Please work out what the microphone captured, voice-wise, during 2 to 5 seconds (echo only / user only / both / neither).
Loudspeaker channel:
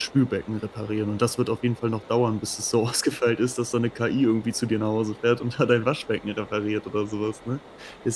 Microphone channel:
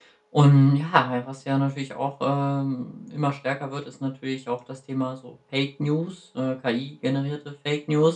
user only